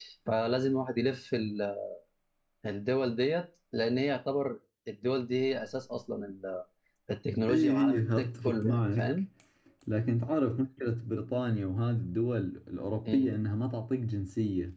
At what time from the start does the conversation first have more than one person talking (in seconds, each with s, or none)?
7.5 s